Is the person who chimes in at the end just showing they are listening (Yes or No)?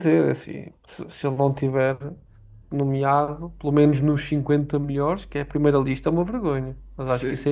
No